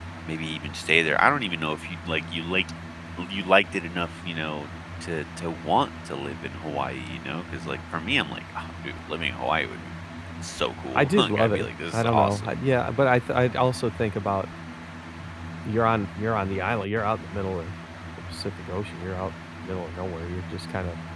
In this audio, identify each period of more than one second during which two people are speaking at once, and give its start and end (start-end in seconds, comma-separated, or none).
10.9-12.5